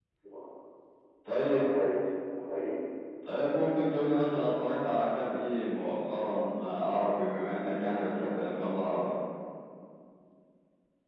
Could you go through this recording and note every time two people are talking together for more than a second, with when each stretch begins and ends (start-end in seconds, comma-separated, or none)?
none